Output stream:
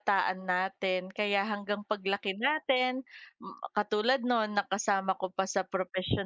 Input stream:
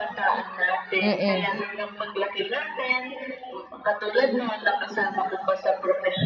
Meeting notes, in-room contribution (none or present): present